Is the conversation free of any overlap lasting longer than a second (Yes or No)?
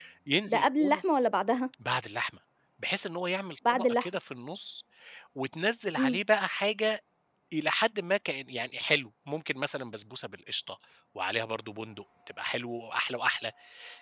Yes